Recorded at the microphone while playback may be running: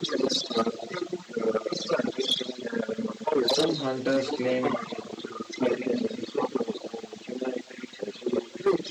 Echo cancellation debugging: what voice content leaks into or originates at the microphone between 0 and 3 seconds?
echo only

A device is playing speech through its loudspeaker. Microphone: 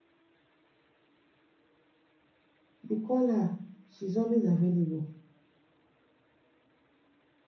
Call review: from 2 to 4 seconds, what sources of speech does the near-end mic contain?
user only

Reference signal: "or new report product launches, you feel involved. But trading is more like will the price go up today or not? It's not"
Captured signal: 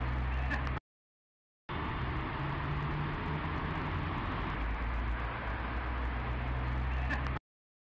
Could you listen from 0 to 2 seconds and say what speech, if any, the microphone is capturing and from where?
neither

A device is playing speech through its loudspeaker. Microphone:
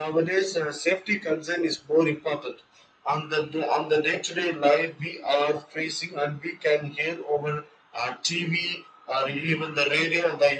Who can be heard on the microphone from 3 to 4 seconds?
echo only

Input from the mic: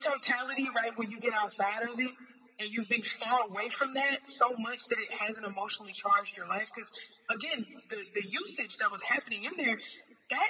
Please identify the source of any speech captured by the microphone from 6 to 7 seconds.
echo only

